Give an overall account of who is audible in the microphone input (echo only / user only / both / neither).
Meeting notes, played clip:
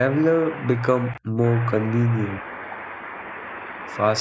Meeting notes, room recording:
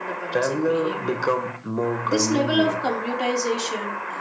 both